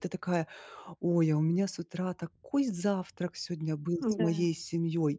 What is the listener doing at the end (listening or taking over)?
listening